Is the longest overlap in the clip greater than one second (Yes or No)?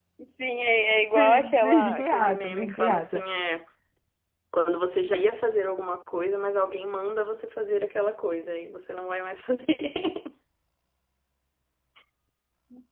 Yes